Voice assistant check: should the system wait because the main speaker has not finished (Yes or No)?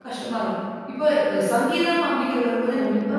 Yes